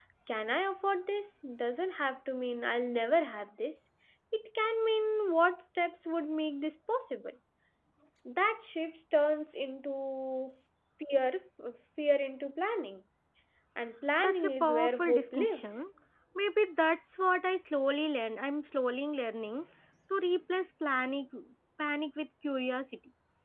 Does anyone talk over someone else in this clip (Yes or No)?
Yes